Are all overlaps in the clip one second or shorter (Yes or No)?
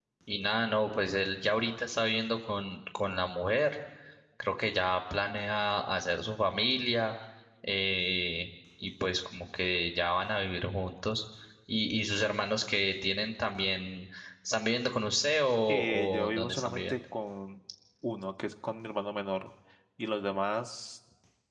No